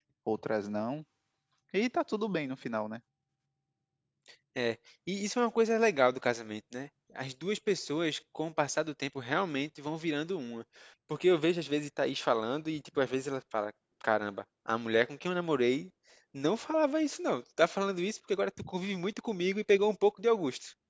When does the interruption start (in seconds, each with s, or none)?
none